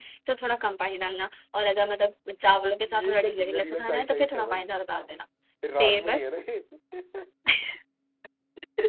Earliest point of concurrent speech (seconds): 2.9 s

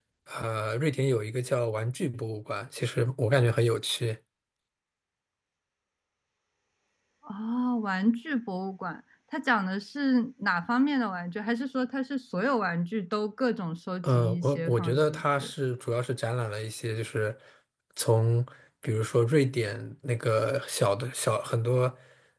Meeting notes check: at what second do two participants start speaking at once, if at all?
14.0 s

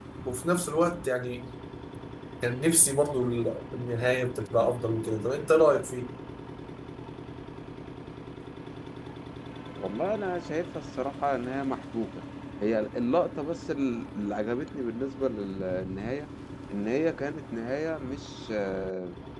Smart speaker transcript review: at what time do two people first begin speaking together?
none

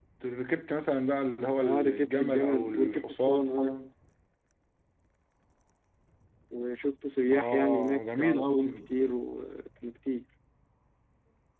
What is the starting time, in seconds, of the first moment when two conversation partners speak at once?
1.6 s

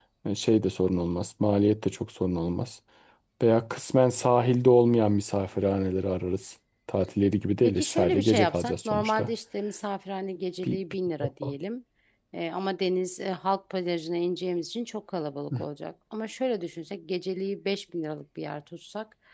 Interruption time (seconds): 7.6 s

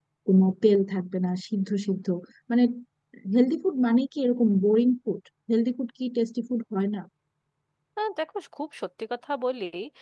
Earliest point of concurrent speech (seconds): none

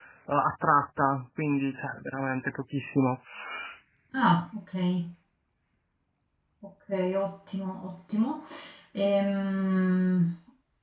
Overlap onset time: none

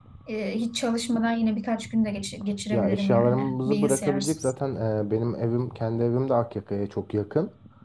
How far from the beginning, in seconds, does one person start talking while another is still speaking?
2.7 s

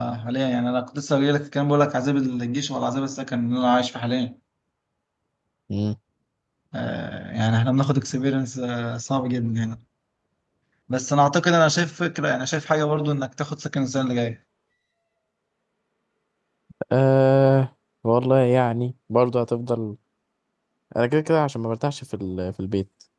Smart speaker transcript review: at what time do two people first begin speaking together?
none

